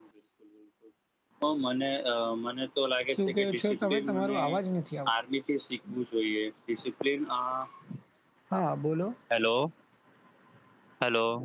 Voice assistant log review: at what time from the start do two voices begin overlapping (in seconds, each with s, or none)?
3.2 s